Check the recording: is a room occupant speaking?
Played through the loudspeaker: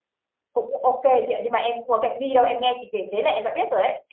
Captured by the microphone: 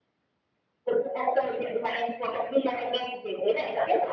No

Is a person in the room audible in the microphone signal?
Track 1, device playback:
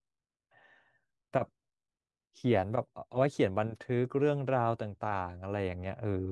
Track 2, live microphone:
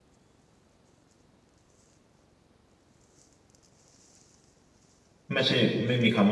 Yes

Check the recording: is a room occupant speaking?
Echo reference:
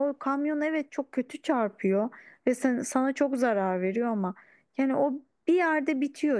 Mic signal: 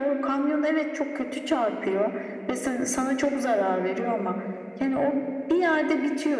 No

